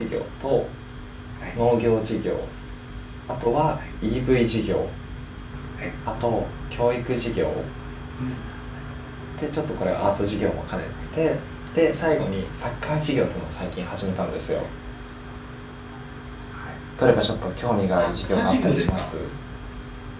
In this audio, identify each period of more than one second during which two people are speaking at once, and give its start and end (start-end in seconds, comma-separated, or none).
17.9-19.1